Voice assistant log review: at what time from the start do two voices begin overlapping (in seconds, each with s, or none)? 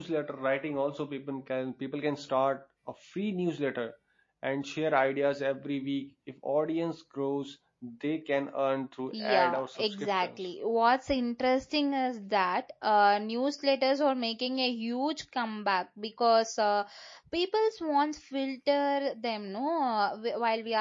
9.1 s